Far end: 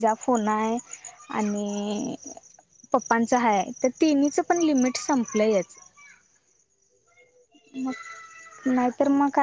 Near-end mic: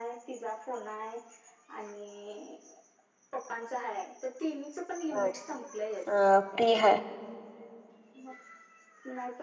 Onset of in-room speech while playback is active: 5.1 s

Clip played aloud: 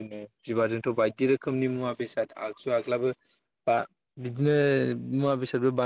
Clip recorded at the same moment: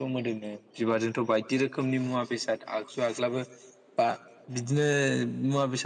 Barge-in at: none

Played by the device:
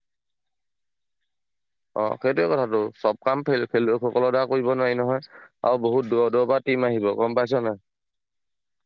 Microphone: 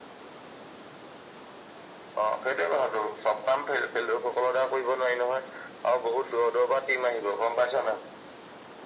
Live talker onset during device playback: none

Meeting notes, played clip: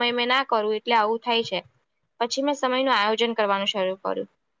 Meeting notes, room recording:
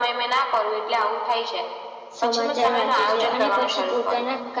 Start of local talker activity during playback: 2.2 s

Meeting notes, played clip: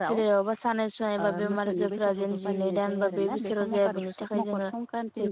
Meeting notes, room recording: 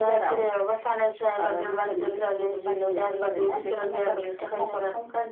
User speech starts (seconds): none

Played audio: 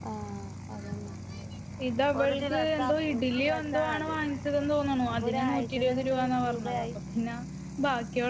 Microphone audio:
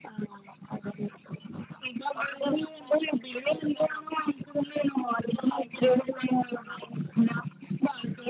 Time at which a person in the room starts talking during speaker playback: none

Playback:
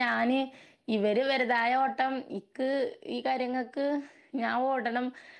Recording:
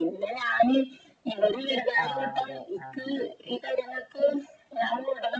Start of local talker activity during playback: 2.0 s

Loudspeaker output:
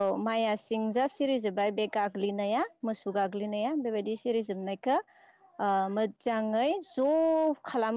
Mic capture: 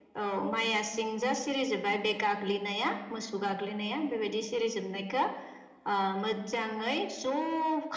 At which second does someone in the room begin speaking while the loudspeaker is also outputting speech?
none

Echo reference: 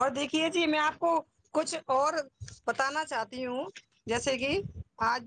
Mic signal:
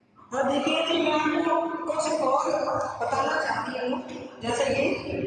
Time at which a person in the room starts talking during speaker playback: none

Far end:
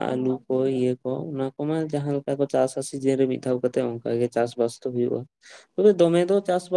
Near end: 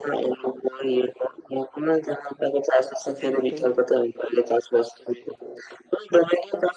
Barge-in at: 3.0 s

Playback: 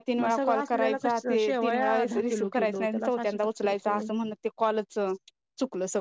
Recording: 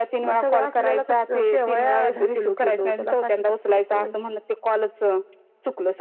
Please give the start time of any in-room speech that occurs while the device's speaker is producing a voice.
none

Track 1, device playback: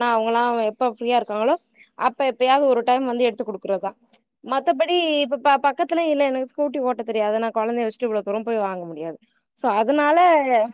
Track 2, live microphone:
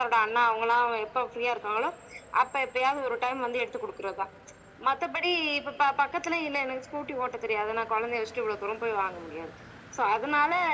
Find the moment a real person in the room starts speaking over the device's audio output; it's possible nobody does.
none

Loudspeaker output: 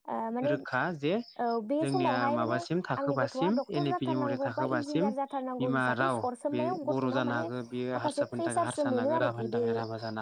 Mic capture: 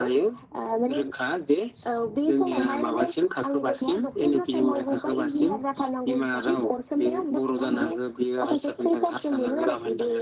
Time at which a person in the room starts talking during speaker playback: none

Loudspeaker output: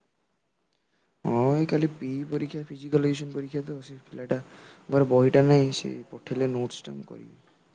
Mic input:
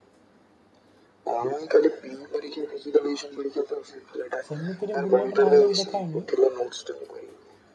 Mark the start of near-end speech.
4.5 s

